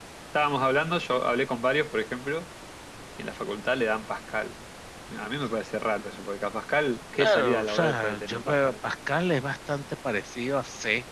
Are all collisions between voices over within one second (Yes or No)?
No